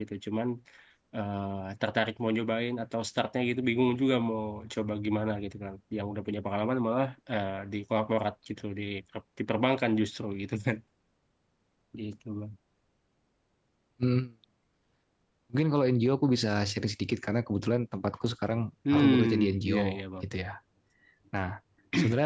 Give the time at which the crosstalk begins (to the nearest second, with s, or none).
19 s